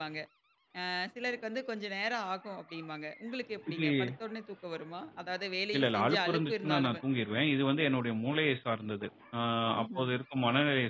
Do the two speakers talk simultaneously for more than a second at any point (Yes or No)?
Yes